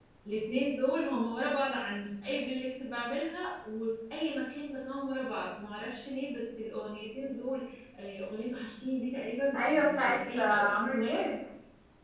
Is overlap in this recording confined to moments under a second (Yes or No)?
No